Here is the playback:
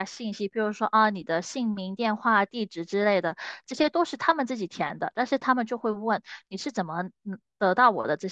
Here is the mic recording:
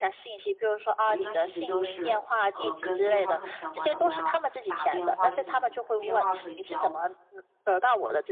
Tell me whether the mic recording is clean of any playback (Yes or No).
No